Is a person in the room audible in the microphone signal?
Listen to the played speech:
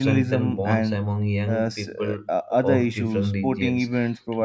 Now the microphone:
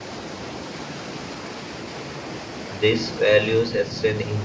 Yes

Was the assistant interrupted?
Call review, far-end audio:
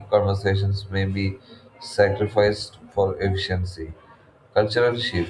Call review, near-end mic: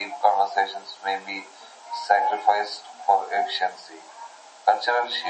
No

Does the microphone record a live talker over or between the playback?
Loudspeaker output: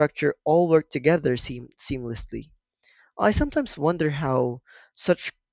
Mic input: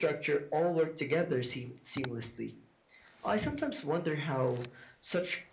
No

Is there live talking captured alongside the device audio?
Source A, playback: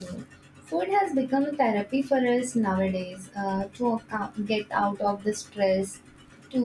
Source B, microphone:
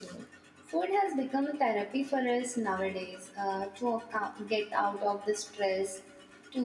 No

